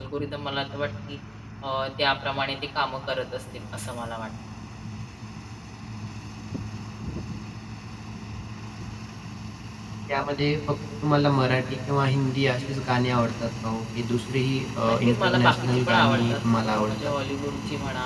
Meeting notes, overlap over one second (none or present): present